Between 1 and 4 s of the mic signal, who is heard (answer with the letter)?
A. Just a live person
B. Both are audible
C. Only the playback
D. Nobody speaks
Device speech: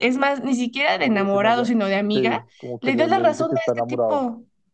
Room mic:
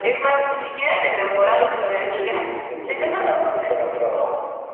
B